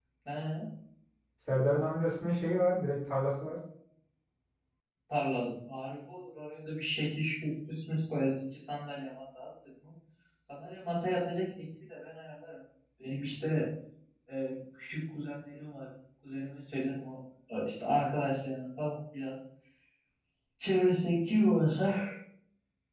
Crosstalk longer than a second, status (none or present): none